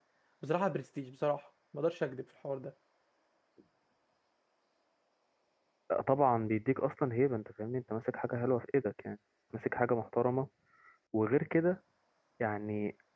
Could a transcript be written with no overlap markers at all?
Yes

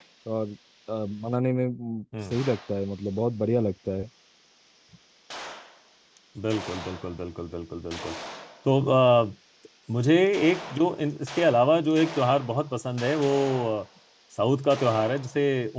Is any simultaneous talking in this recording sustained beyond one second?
No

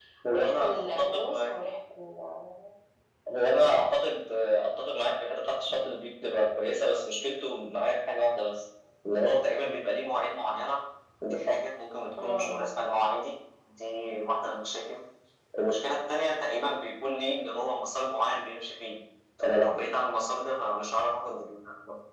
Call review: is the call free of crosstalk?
No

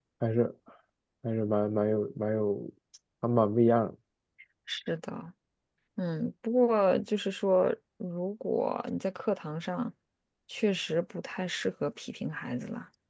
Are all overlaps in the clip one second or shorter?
Yes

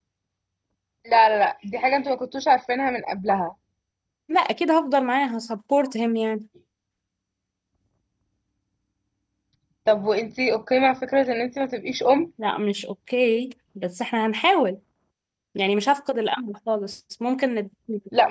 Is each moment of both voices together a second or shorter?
Yes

